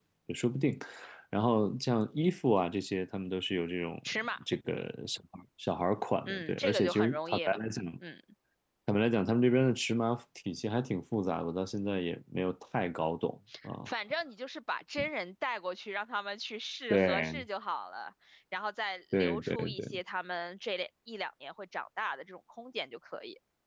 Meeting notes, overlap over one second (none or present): present